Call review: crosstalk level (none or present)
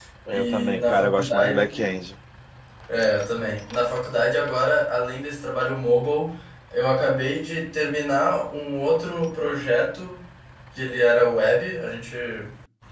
present